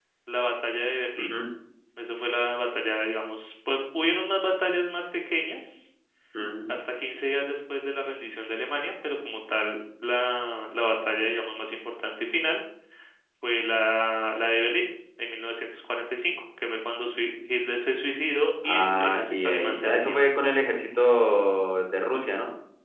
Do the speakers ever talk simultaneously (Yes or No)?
Yes